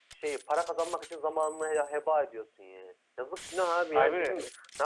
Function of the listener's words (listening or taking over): listening